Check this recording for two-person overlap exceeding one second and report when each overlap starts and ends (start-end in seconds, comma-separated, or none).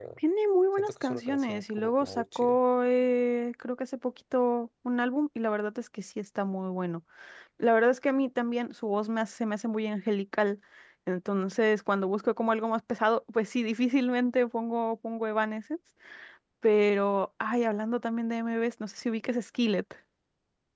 0.8-2.6